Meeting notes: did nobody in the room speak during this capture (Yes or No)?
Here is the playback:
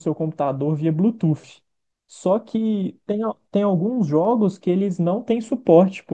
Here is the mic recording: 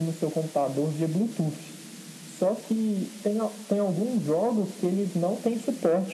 Yes